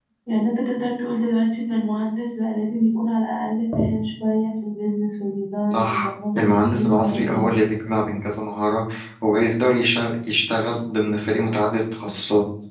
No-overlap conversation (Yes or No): No